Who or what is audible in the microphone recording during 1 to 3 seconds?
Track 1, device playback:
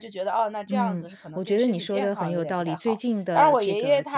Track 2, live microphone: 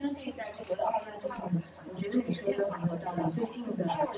echo only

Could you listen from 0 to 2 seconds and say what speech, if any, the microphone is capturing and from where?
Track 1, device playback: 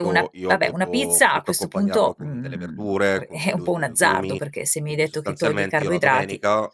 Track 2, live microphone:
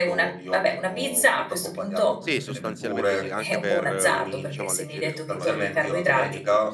echo only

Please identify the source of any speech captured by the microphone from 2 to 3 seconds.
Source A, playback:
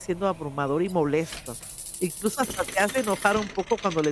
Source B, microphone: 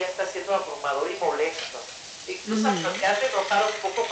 both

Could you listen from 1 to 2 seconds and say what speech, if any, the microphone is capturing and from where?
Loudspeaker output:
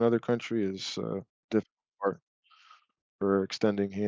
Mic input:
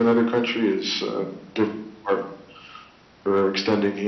echo only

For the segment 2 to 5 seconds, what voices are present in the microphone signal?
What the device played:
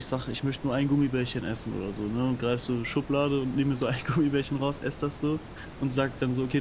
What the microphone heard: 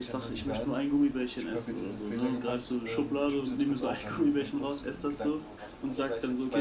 both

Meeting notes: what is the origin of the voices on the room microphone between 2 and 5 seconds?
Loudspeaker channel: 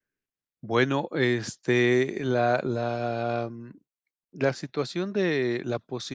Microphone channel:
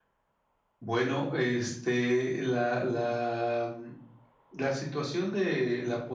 echo only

